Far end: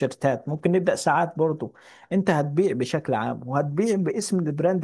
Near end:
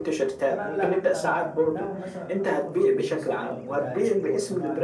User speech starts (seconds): 0.5 s

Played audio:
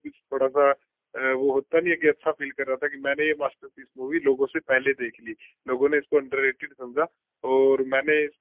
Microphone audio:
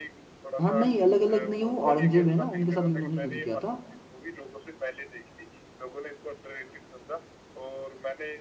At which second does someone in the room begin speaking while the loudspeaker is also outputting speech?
0.6 s

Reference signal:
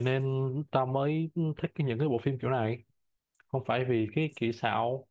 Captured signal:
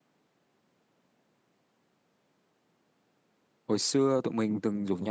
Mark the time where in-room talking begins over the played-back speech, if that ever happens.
3.7 s

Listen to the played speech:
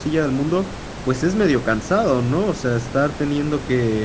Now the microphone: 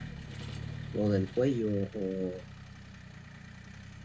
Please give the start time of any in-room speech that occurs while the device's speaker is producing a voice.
0.9 s

